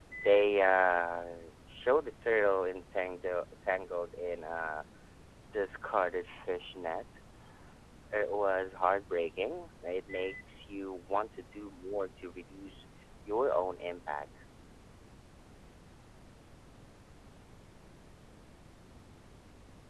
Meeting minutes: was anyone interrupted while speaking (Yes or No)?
No